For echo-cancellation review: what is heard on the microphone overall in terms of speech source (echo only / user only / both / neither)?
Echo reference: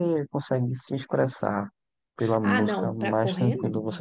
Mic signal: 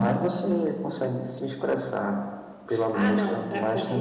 echo only